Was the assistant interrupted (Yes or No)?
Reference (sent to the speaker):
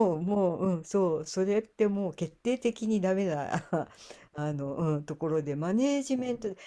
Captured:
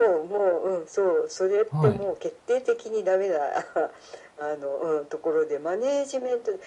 Yes